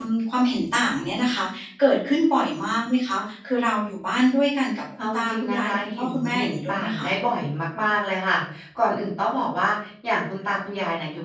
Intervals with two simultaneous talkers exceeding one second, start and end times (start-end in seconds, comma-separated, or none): 5.0-7.0